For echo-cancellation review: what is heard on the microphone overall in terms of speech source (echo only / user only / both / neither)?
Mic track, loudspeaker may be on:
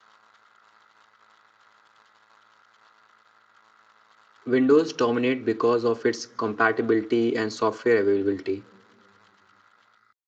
user only